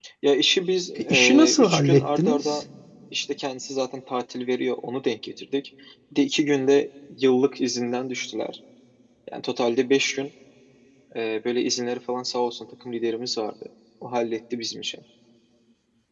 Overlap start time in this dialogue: 1.0 s

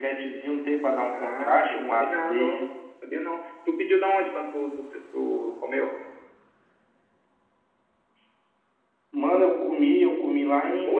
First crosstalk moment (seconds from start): 1.1 s

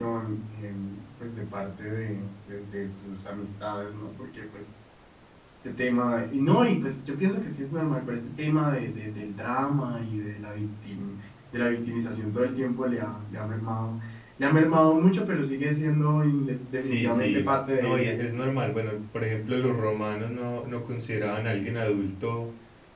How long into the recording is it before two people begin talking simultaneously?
16.7 s

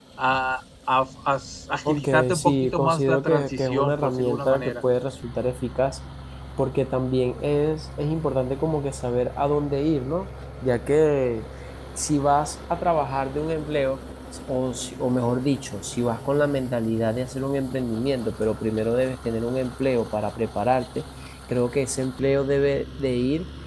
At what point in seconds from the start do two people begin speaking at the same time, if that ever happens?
1.9 s

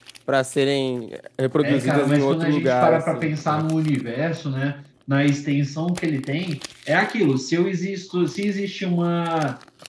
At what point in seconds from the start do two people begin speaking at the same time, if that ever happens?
1.6 s

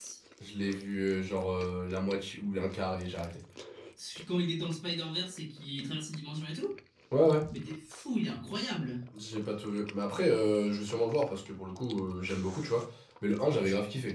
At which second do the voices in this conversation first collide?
none

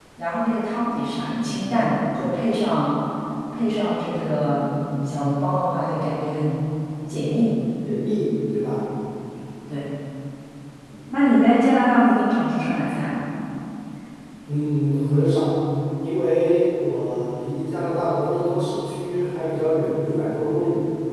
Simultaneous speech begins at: none

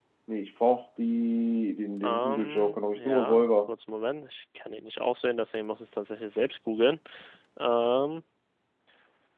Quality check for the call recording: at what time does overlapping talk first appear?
2.0 s

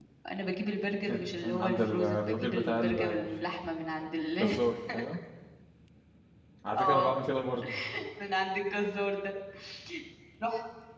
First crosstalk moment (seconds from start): 1.1 s

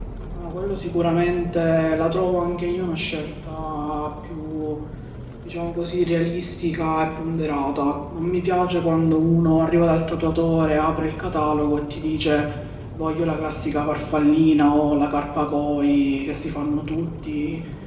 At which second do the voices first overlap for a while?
none

